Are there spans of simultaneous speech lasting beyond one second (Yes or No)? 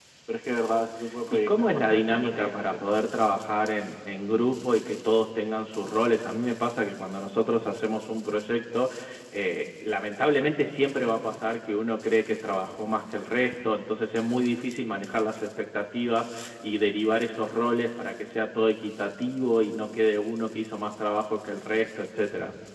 Yes